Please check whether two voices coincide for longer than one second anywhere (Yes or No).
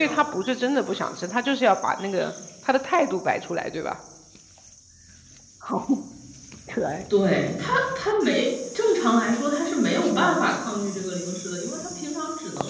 No